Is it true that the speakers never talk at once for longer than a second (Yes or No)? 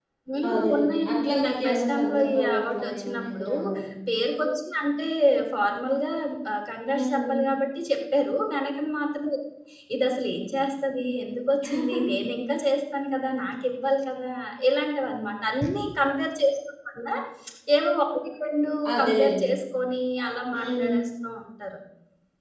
No